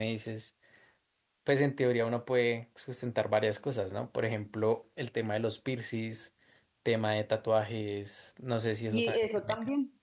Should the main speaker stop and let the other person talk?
Yes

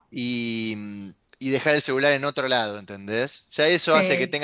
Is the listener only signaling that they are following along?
Yes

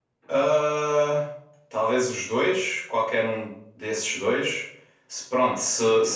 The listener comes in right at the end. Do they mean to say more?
No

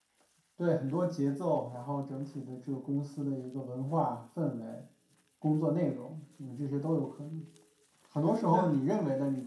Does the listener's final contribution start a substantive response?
No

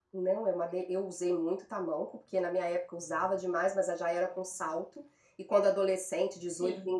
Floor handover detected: No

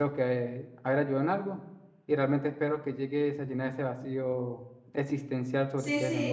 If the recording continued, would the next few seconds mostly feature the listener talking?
Yes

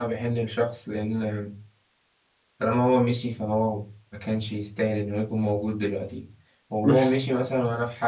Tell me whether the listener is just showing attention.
Yes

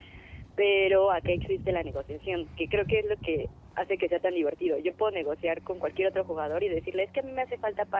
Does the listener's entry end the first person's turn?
No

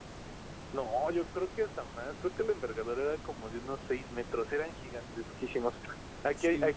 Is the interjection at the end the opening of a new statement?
No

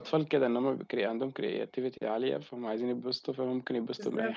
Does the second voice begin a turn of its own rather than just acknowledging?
Yes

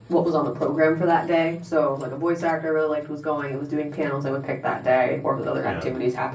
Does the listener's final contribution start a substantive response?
No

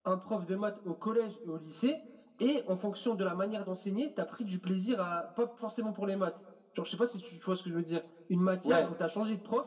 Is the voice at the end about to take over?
No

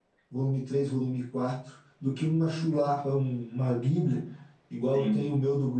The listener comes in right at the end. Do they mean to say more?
No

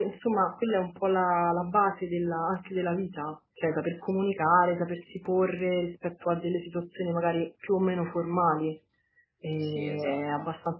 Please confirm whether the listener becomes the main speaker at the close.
No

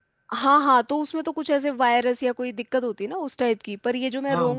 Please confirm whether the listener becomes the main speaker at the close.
No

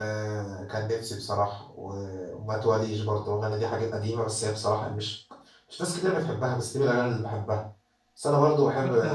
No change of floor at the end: Yes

